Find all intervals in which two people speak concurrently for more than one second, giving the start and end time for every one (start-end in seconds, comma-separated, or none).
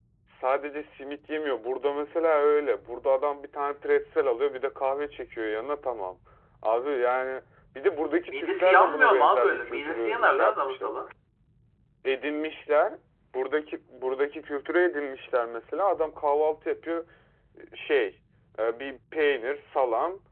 8.3-10.9